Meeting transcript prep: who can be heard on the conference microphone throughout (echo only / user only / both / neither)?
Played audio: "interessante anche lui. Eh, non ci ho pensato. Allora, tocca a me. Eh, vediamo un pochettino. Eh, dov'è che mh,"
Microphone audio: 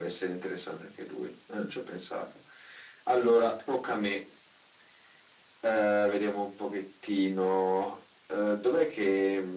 echo only